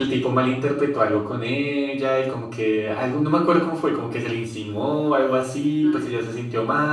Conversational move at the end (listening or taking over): listening